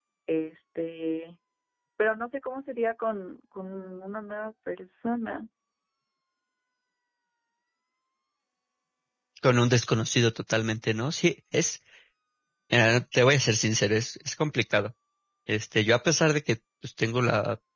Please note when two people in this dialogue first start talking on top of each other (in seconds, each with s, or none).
none